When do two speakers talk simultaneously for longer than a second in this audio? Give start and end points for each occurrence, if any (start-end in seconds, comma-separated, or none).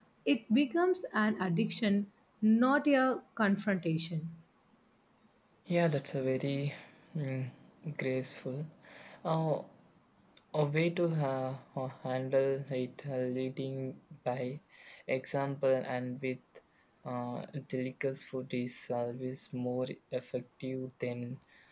none